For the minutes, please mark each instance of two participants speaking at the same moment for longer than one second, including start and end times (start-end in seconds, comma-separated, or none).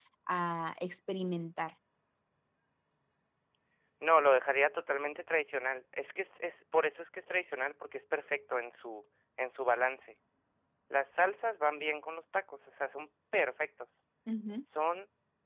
none